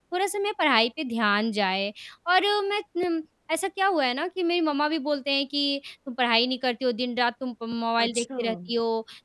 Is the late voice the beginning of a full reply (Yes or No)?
No